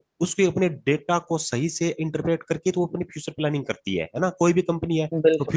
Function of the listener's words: listening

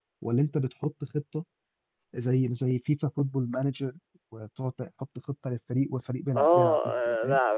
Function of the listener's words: taking over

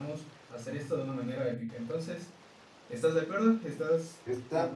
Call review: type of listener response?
taking over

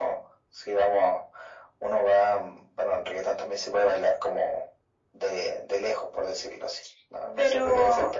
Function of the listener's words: taking over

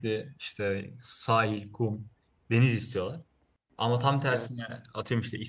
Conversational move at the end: listening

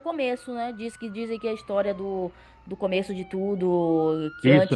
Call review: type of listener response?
taking over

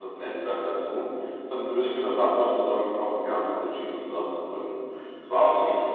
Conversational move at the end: listening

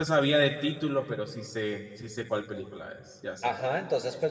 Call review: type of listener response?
taking over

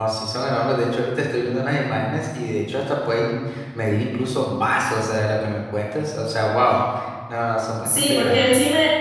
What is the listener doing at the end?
taking over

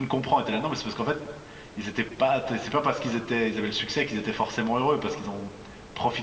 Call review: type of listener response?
listening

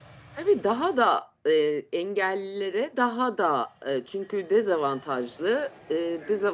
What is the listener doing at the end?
listening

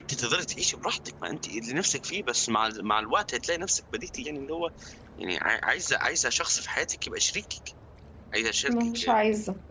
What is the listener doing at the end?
taking over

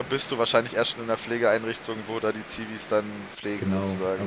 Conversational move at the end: taking over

